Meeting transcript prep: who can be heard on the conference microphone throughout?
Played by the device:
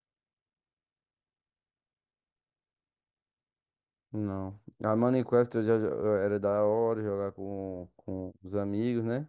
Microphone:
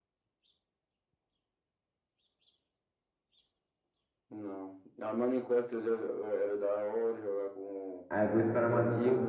both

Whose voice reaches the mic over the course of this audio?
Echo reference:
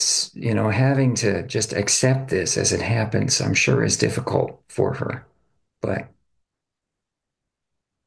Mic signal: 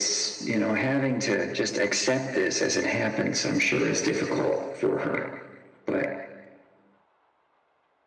echo only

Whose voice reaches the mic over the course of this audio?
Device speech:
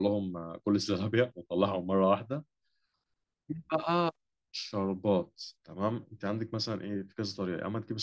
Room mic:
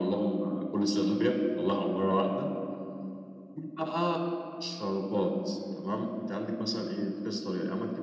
echo only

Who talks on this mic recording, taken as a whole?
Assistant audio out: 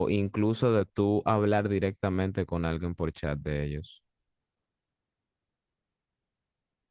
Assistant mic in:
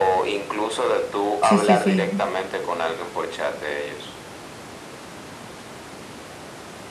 both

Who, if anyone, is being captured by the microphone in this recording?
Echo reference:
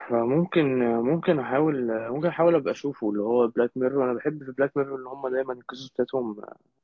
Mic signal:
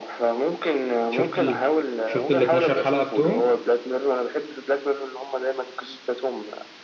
both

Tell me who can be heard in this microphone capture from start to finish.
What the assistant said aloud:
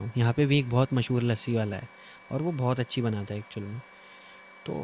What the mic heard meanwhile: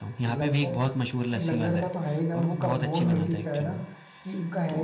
both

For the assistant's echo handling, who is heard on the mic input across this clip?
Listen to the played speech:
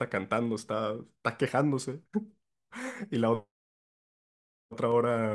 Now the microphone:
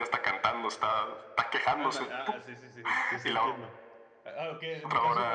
both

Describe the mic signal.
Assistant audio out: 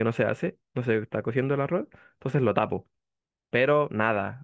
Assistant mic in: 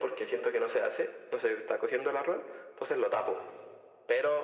echo only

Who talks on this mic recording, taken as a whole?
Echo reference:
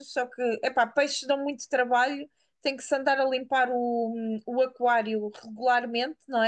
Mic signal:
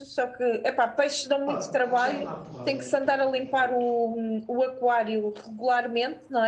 both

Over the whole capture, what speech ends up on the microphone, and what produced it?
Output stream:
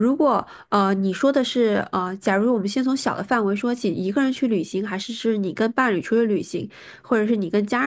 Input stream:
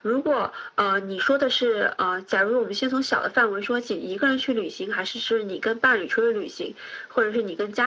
echo only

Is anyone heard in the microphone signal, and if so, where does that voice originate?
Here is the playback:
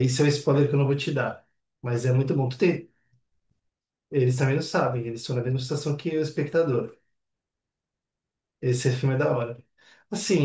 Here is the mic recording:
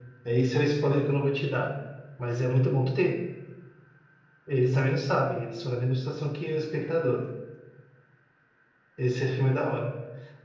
echo only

